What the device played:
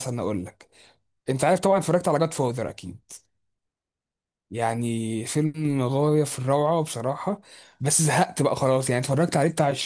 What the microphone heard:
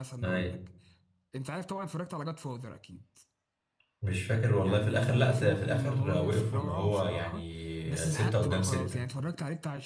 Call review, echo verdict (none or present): present